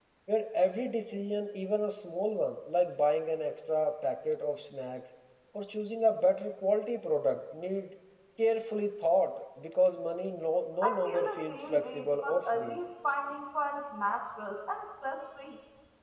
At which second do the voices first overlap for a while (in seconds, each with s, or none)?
10.8 s